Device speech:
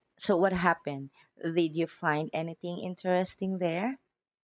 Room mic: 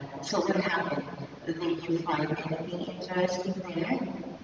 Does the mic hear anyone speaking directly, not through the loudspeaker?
No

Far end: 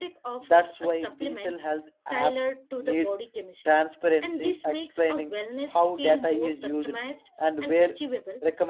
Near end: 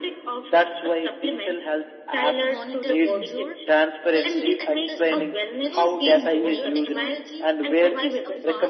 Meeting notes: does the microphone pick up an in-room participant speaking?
Yes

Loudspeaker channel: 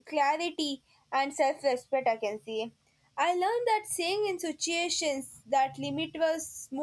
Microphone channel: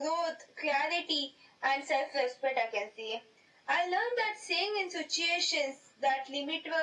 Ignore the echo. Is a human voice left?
No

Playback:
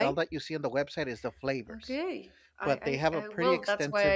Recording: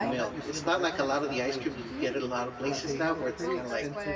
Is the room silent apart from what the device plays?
No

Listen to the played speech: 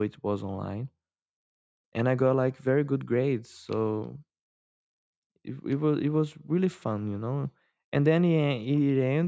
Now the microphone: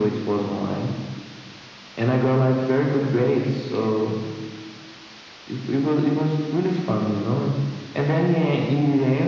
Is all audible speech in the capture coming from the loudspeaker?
Yes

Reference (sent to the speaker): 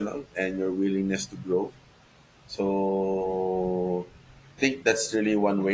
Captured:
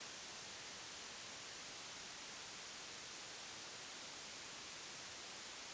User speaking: No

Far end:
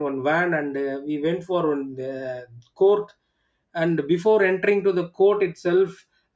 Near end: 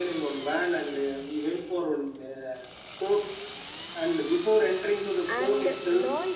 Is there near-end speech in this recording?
Yes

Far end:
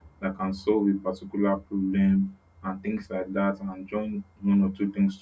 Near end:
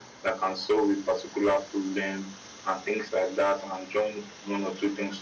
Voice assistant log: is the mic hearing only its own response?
Yes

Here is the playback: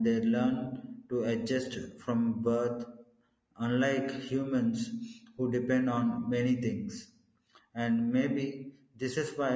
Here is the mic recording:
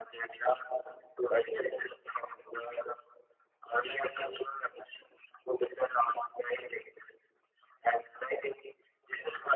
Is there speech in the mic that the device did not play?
No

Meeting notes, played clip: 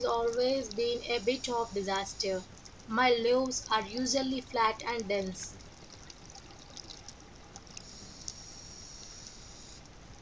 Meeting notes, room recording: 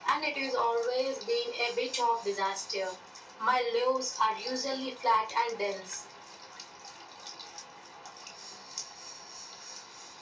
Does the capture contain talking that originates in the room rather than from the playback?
No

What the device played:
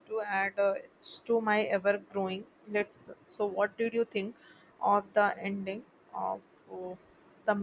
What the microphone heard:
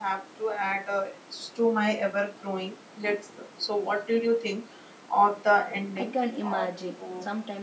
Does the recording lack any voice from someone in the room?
No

